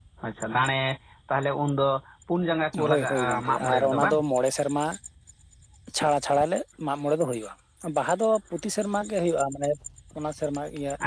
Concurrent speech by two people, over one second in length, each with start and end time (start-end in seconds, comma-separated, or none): 2.9-4.2